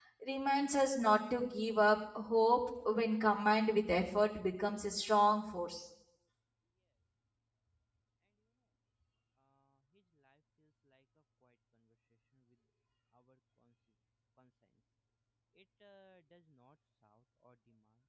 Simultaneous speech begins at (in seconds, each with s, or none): none